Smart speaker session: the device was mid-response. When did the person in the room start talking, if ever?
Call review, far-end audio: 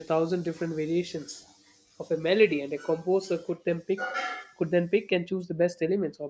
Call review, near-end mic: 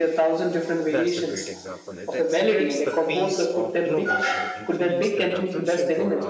0.9 s

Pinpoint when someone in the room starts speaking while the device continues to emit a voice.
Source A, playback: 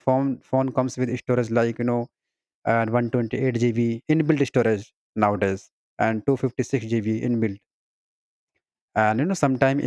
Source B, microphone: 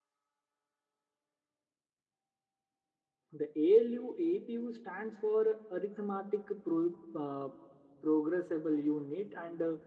3.3 s

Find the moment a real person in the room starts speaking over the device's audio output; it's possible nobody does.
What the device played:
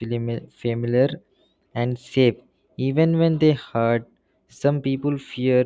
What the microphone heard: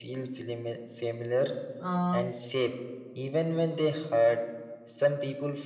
1.8 s

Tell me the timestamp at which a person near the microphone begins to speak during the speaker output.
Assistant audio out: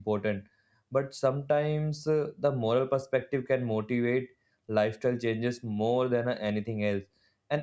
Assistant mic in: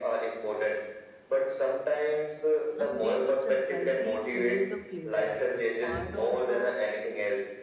2.8 s

